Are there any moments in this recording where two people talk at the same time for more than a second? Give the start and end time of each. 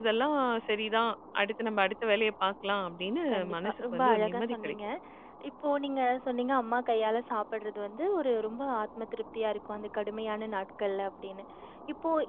3.3-4.6

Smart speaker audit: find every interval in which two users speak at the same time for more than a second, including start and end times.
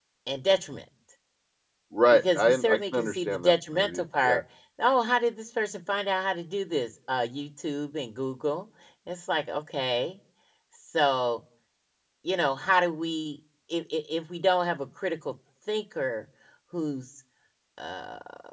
2.1-4.4

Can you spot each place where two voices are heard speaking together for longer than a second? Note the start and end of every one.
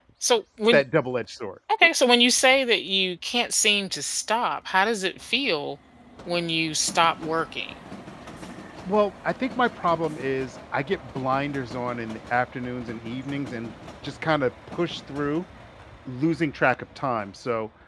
none

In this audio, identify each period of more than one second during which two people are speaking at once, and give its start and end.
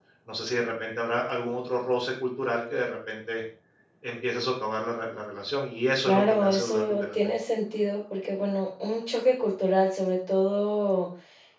6.0-7.3

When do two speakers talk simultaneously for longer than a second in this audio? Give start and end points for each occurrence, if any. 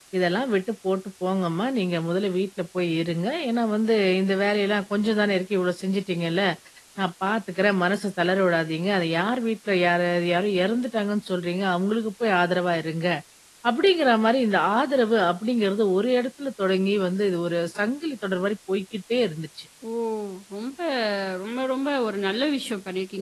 none

